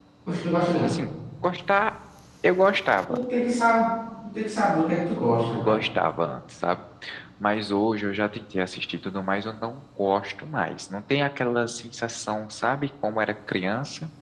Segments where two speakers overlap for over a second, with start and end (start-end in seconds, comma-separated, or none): none